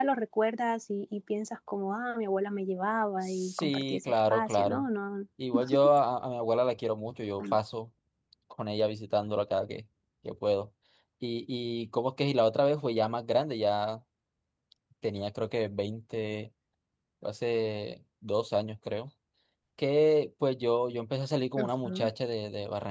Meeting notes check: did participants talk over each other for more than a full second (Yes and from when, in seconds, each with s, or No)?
Yes, from 3.2 s